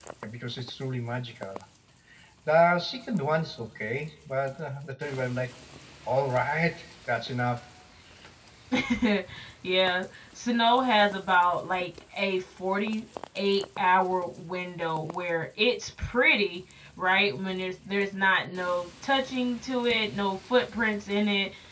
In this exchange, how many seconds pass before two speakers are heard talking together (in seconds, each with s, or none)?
none